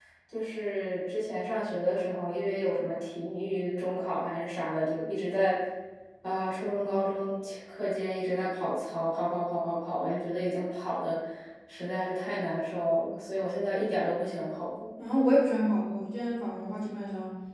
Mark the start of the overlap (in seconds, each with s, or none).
none